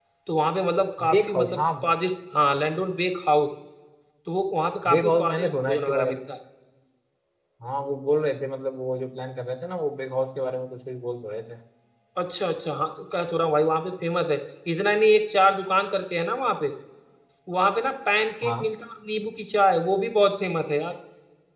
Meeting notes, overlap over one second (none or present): present